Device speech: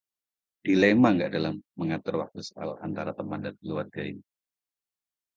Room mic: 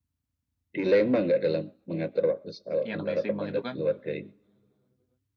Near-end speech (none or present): present